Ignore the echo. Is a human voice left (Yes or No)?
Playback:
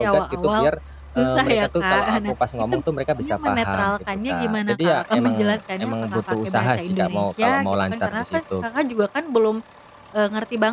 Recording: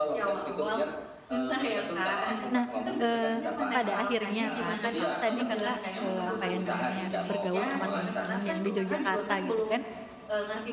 Yes